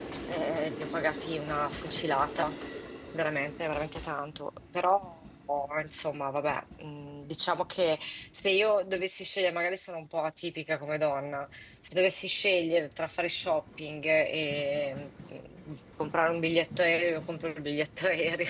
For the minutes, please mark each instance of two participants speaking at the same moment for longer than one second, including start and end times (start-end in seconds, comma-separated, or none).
none